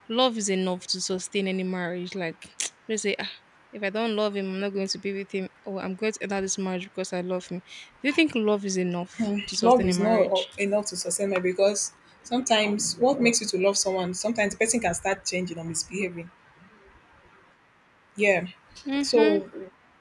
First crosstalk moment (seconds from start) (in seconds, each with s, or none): 9.2 s